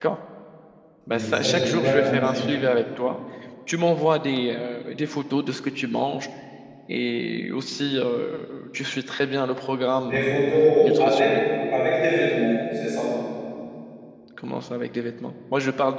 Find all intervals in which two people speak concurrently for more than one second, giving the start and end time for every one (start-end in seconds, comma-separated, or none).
1.1-2.5